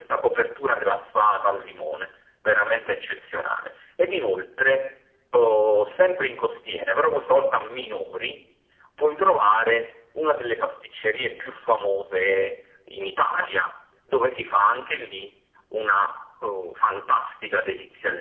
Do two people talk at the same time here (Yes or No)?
No